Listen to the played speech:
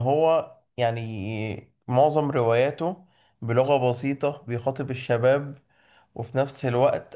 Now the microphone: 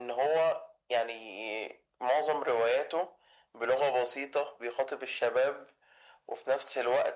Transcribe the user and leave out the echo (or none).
none